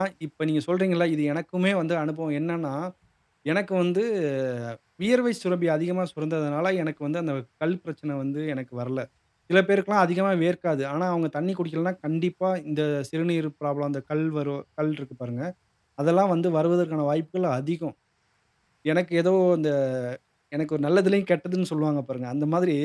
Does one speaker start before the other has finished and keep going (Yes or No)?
No